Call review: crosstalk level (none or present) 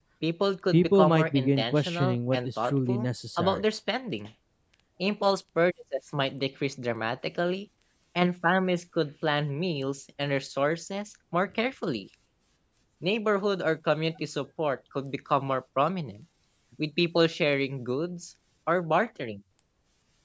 present